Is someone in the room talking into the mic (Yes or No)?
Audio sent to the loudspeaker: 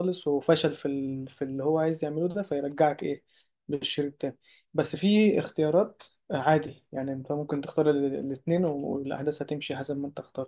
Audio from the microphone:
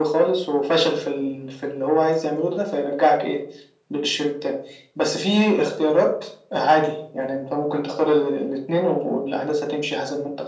No